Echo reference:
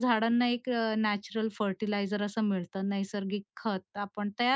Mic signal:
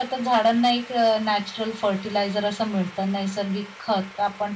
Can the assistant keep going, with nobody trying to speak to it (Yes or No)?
Yes